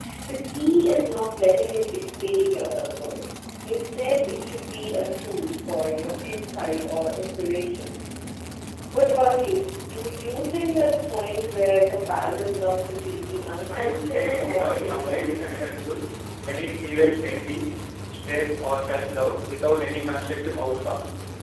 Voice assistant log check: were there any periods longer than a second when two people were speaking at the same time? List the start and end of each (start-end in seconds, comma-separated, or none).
13.7-15.7